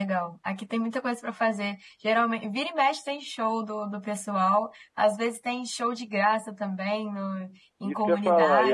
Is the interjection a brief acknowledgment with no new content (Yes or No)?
No